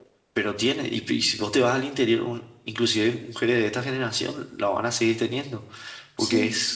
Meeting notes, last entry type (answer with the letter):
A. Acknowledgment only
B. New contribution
A